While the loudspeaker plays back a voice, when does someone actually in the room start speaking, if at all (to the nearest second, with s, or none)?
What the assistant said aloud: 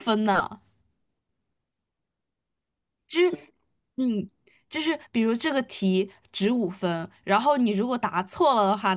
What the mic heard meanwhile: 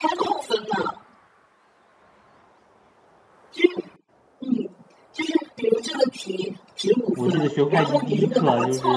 7 s